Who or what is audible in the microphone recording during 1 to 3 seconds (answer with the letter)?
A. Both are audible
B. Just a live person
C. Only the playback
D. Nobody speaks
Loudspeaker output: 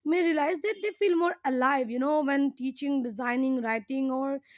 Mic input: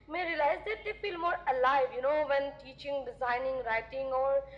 C